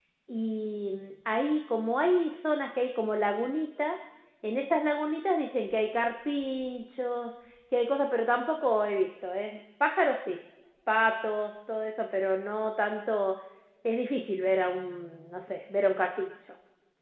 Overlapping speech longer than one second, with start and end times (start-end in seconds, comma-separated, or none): none